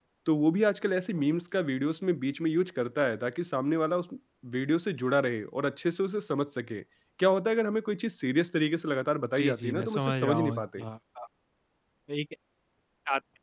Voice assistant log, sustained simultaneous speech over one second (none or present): present